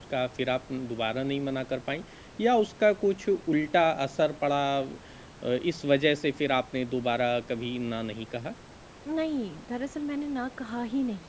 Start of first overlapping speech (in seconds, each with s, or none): none